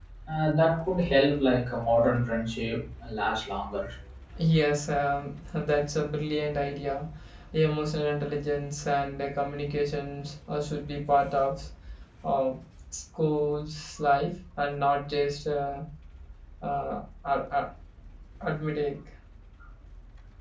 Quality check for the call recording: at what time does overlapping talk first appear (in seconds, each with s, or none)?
none